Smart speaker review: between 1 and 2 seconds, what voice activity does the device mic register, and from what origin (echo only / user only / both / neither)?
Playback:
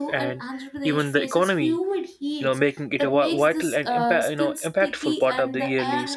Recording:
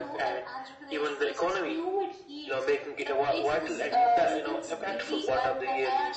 echo only